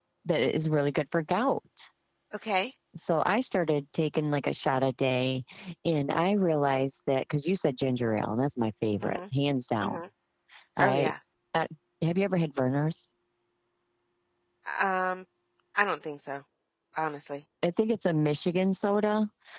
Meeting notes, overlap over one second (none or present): none